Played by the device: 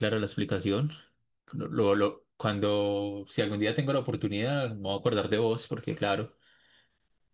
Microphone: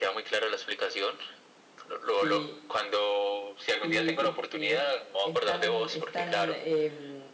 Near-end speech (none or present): present